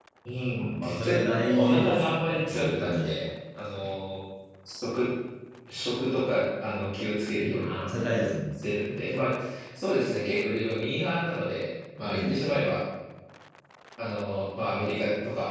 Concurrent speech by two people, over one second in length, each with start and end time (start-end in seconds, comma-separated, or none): 0.7-3.1